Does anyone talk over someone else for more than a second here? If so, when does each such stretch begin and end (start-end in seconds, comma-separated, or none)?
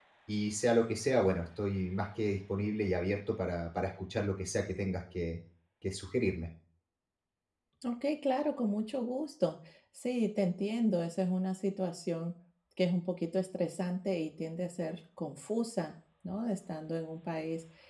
none